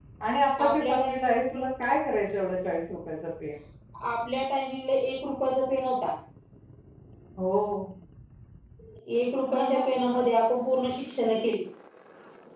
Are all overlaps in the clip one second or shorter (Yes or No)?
Yes